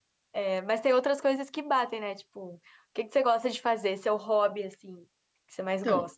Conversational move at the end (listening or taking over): taking over